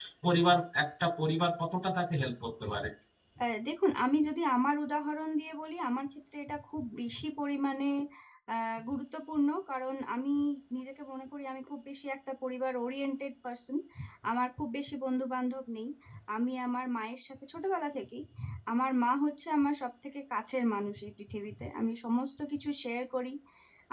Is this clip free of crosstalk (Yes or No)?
Yes